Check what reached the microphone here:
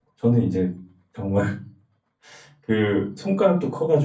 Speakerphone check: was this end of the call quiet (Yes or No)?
No